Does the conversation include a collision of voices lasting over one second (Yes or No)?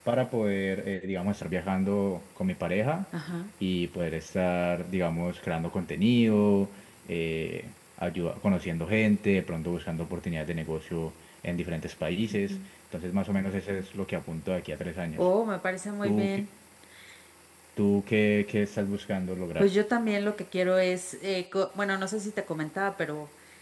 No